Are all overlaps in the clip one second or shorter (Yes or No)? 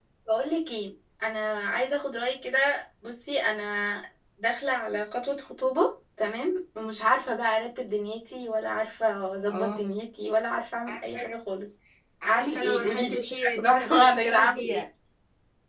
No